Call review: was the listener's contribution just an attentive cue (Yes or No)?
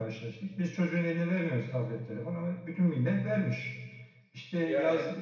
Yes